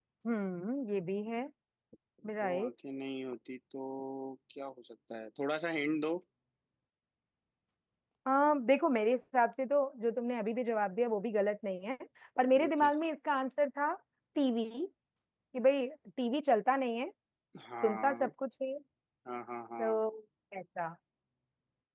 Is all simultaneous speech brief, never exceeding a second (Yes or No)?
Yes